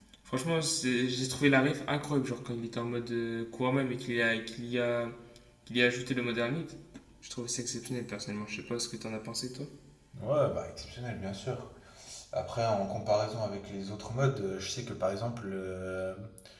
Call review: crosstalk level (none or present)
none